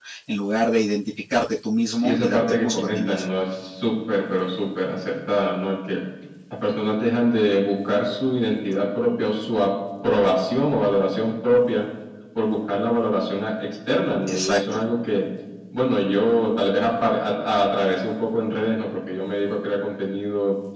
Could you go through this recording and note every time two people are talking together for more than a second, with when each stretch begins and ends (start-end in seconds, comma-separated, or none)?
2.0-3.2